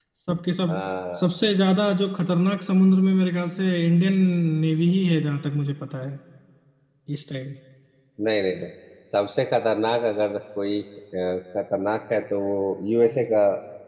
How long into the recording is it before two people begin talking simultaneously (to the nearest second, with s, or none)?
none